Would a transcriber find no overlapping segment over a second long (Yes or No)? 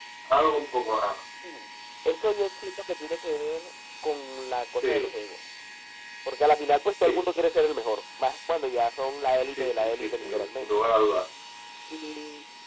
No